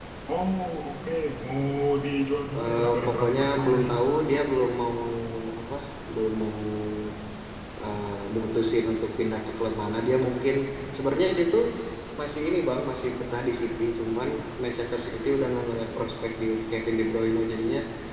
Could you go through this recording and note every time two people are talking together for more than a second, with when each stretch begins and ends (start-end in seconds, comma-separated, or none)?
2.6-3.9